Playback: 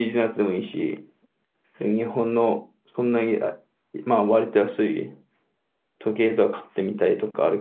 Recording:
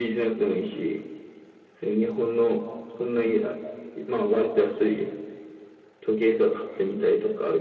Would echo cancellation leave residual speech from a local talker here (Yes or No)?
No